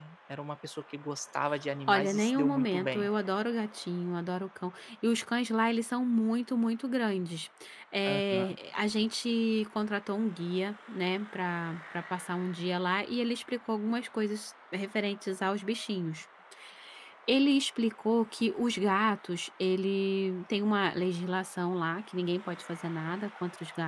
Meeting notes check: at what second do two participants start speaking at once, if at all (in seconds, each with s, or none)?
1.9 s